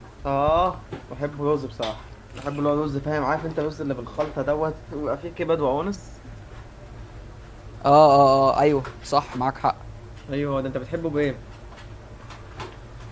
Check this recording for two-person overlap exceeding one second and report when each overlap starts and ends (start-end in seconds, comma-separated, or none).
none